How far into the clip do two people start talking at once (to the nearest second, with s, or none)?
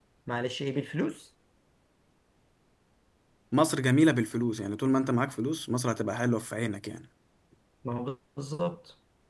none